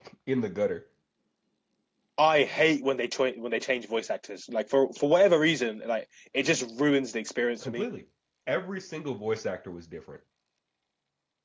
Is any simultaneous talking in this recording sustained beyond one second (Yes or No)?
No